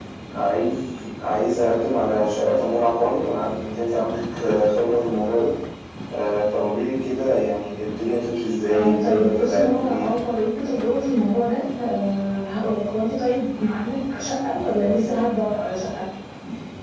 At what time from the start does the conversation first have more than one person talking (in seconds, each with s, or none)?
8.6 s